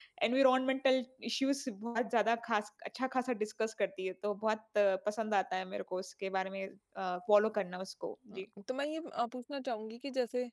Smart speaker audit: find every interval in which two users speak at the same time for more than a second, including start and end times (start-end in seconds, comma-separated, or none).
none